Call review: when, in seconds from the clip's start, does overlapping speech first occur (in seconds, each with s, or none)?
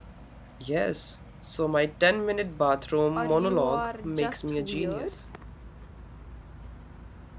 3.2 s